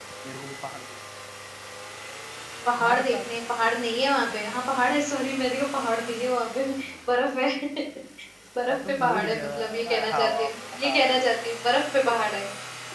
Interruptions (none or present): present